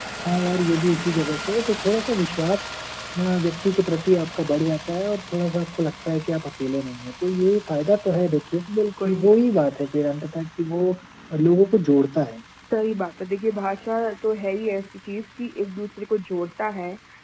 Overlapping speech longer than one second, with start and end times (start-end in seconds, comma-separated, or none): none